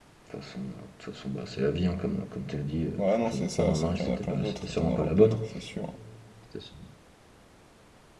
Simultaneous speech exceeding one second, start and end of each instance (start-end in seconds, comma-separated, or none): 3.0-5.3